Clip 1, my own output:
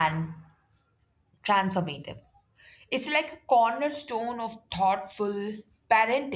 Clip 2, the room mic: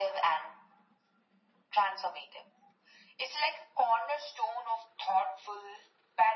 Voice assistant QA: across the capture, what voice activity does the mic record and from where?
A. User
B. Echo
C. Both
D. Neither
B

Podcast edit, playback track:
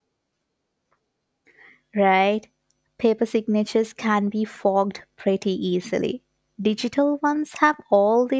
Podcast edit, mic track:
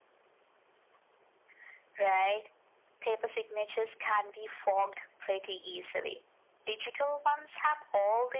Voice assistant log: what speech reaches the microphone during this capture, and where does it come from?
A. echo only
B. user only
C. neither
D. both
A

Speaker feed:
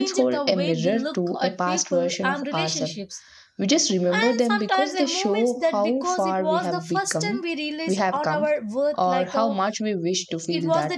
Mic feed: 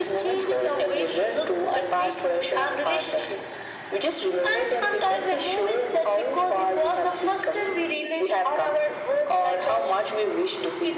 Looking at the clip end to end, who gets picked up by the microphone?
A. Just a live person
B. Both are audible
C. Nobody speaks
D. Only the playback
D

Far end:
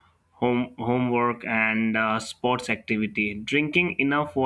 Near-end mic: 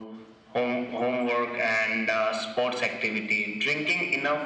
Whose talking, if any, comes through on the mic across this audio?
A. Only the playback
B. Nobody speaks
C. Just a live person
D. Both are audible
A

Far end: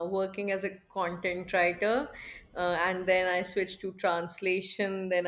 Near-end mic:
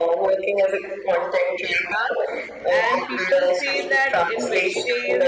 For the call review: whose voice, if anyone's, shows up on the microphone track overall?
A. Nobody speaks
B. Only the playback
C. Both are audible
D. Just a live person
C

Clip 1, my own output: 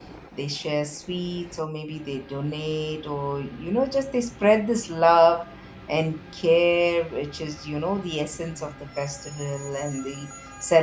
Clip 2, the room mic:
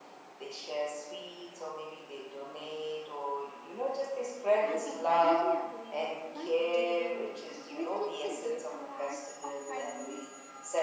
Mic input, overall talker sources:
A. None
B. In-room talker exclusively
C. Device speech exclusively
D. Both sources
D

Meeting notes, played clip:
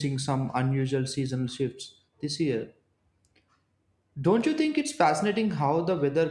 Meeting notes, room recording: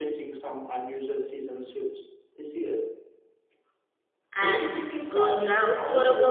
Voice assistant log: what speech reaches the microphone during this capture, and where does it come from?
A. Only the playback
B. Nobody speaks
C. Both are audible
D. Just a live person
C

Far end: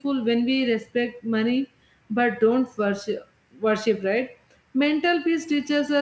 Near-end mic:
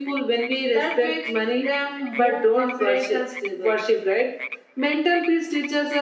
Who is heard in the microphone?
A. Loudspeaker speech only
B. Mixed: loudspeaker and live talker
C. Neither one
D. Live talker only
B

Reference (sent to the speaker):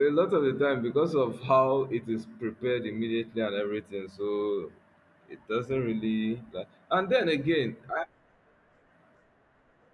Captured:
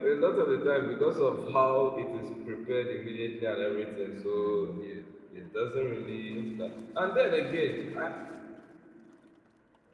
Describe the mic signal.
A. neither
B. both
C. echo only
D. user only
B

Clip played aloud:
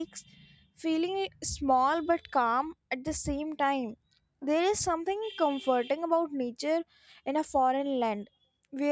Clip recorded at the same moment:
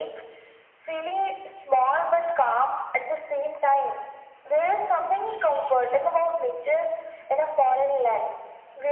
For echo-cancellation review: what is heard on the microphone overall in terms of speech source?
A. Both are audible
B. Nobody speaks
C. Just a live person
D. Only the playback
D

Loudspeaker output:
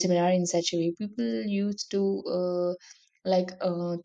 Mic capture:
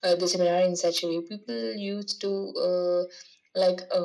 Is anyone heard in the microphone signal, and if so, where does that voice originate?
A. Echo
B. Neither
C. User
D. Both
A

